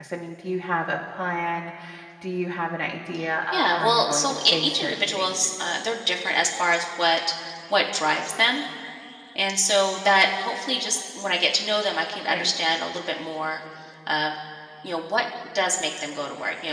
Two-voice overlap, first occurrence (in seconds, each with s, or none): 3.5 s